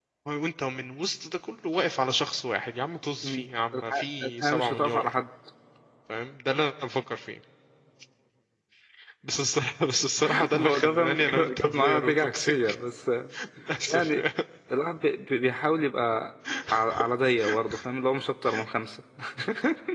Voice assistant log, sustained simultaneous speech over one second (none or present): present